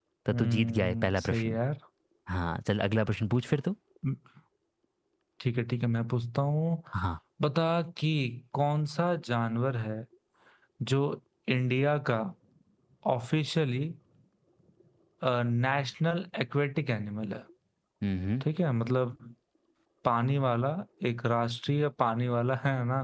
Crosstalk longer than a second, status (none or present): present